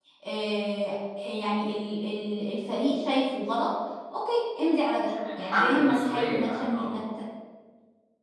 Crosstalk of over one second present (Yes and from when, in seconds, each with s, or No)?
Yes, from 5.4 s